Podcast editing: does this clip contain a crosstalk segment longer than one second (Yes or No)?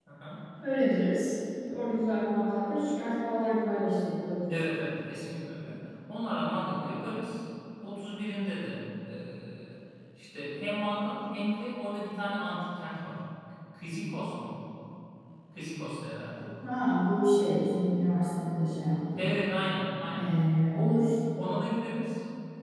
No